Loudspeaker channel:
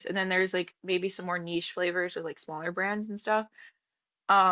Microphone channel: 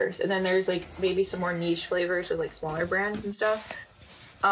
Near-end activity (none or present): none